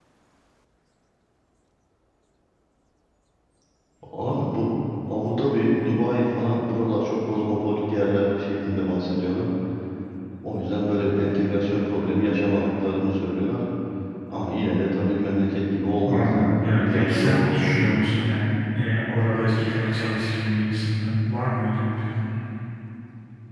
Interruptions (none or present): present